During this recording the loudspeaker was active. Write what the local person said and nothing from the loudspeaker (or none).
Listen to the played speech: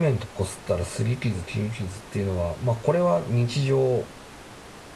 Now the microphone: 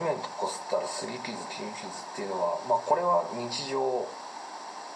none